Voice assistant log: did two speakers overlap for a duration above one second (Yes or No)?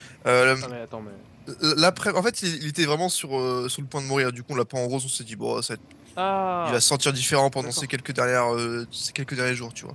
No